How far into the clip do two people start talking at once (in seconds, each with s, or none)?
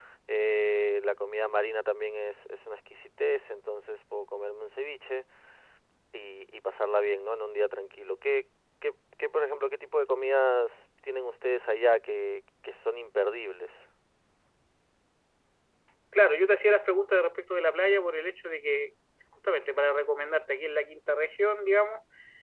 none